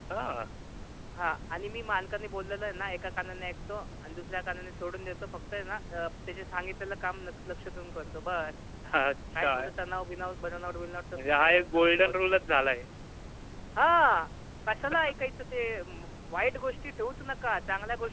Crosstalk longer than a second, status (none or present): present